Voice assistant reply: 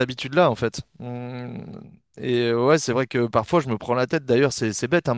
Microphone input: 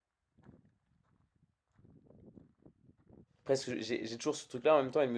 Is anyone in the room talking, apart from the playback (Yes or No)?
Yes